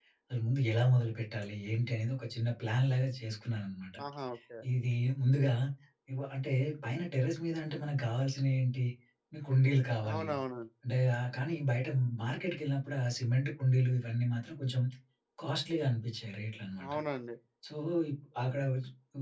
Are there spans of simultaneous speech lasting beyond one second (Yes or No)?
No